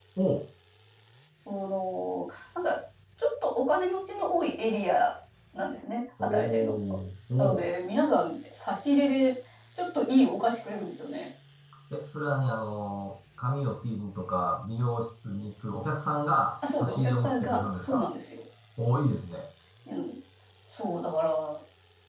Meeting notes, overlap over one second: present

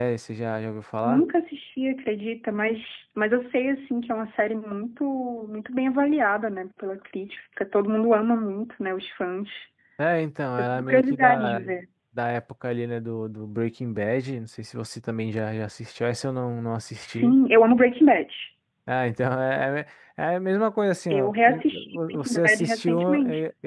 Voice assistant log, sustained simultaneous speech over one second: present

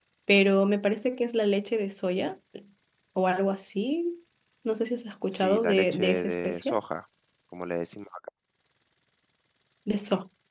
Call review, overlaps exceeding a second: present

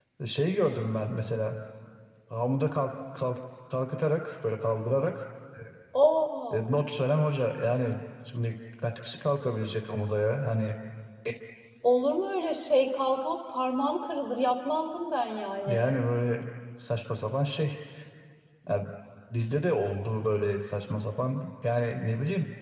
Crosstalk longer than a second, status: none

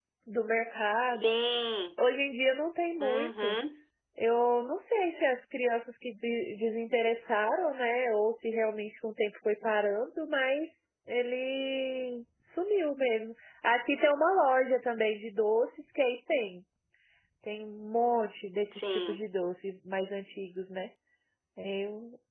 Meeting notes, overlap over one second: none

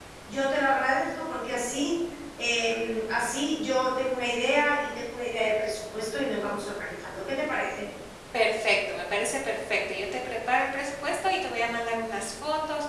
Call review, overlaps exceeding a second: none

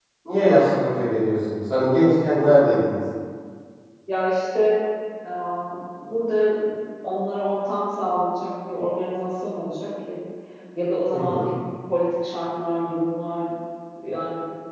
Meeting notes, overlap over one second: none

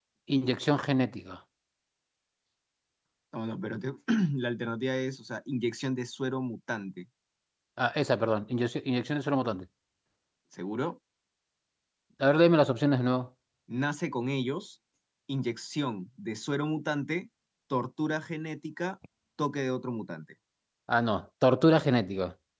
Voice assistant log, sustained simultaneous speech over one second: none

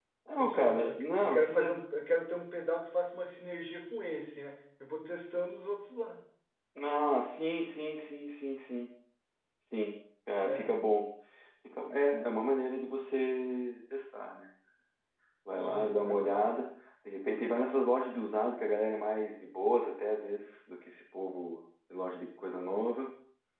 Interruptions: present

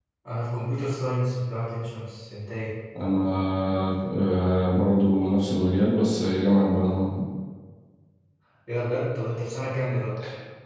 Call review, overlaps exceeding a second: none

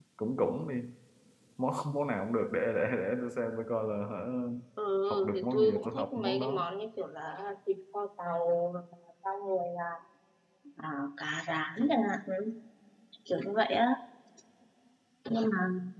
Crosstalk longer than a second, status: present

